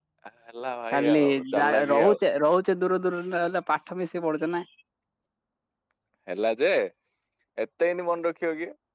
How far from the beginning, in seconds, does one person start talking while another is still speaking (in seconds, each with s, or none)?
0.9 s